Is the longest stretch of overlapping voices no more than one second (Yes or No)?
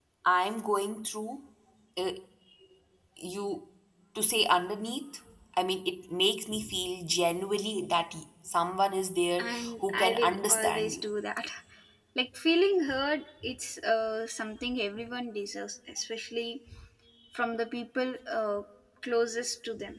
No